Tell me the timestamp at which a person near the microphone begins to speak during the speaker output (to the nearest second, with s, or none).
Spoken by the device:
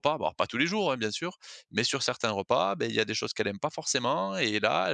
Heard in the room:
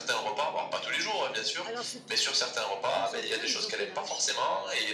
2 s